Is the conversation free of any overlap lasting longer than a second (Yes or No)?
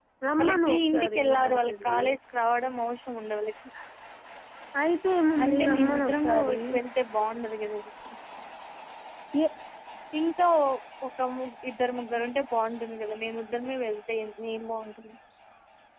No